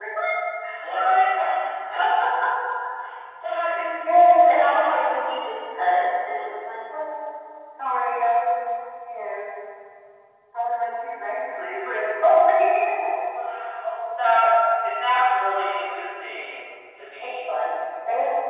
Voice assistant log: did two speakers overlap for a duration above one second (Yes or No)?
Yes